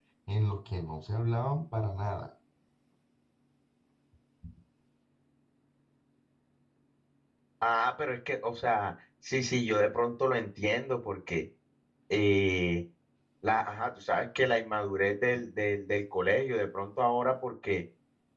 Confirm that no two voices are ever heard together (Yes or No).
Yes